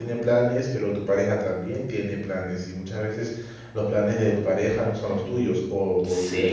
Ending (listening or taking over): taking over